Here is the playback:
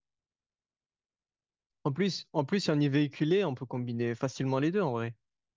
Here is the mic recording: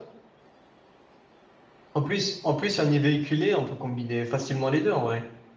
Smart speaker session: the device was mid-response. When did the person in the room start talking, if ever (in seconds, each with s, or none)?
none